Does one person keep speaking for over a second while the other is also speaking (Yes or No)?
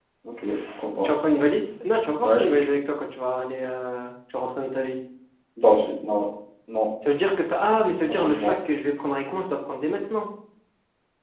No